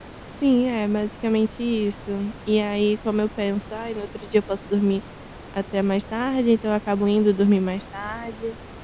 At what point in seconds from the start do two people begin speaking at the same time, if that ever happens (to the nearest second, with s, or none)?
none